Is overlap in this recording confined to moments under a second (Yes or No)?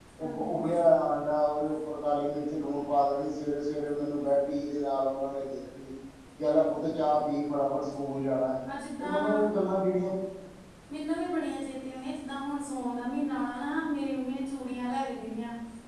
Yes